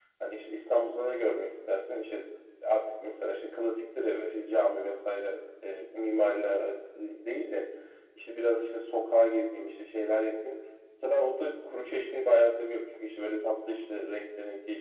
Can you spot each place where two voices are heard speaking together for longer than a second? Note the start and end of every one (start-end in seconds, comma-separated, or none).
none